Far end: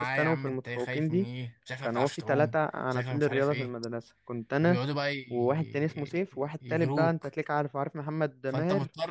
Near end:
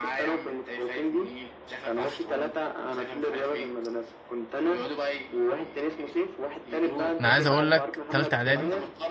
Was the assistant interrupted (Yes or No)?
Yes